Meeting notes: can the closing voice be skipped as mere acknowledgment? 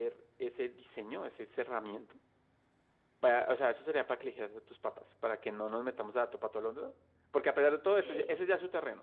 Yes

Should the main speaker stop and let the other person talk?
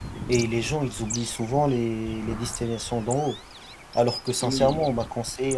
No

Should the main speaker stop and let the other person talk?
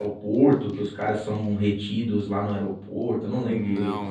Yes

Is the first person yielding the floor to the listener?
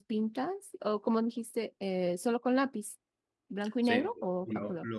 Yes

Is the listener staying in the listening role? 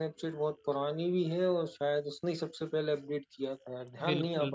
No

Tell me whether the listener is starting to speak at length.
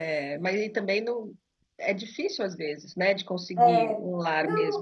Yes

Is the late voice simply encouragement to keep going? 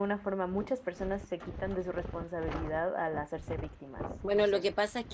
No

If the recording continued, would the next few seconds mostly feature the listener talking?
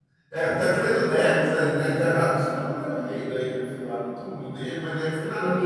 No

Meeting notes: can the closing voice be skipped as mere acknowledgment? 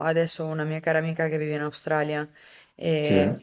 Yes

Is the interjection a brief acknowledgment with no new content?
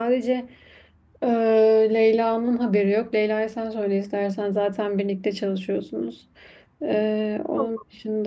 Yes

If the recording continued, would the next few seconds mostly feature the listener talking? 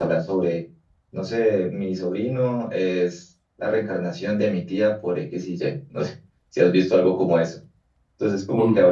No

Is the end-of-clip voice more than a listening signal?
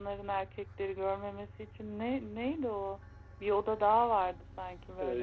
Yes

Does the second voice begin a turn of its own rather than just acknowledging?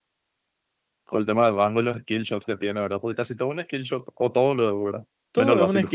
Yes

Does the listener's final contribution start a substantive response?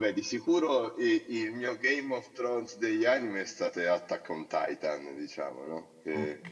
No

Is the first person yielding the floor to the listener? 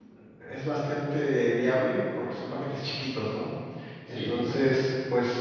No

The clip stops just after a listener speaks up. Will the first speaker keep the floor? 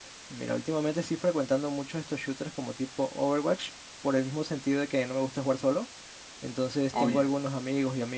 Yes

